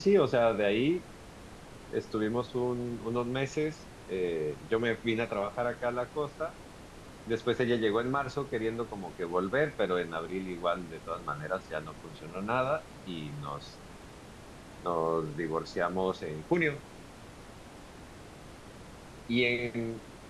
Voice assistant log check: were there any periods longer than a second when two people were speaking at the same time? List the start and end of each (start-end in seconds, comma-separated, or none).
none